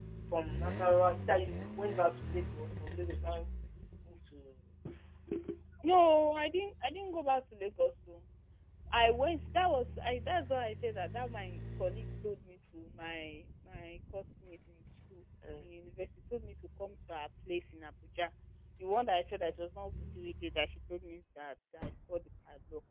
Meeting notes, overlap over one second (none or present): none